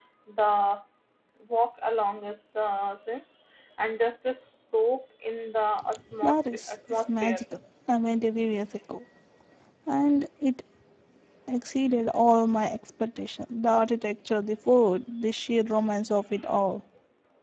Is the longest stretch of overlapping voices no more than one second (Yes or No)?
No